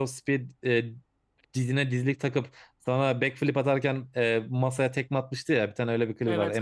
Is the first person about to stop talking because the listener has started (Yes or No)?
Yes